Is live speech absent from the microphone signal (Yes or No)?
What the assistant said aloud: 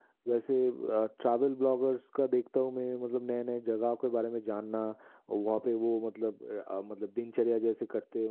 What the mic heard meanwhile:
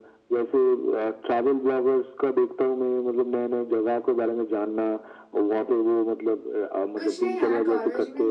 No